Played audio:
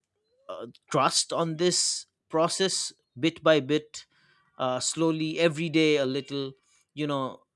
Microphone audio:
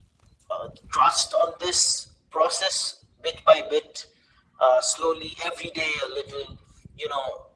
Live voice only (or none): none